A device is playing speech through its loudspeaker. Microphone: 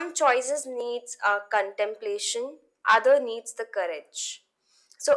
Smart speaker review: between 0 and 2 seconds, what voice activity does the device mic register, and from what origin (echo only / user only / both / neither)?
echo only